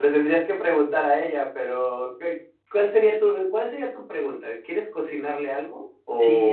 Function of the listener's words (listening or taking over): taking over